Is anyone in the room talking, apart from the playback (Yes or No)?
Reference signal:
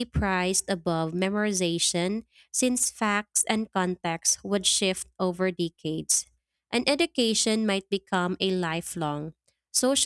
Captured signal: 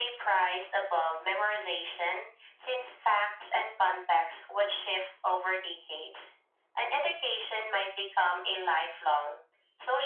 No